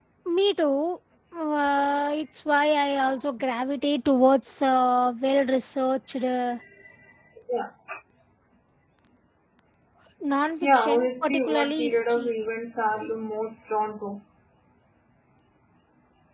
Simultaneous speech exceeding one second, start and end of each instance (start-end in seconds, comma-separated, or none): 10.6-12.3